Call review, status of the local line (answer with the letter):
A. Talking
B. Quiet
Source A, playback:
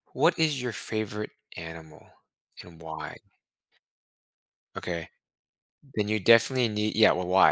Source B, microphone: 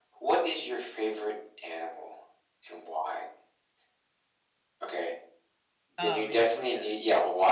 A